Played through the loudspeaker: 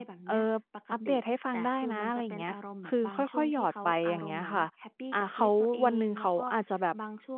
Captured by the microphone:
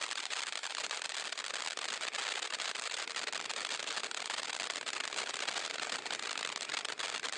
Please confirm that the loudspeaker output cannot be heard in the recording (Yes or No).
Yes